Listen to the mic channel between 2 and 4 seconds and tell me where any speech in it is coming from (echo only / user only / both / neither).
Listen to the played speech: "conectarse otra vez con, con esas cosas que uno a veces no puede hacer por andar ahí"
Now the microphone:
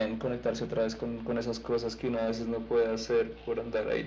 echo only